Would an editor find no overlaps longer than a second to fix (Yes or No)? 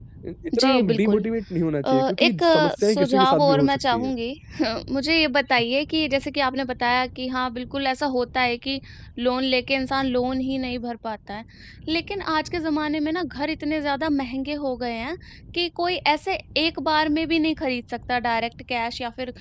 No